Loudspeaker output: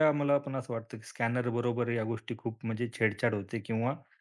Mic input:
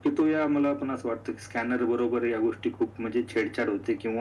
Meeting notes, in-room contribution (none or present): none